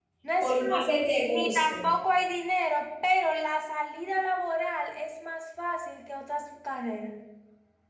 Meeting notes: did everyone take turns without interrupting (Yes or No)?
No